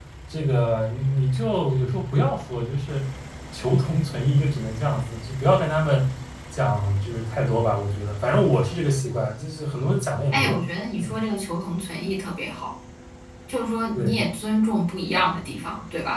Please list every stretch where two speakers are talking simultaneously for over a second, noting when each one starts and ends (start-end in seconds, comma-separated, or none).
none